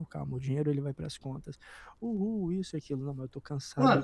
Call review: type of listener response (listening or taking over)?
taking over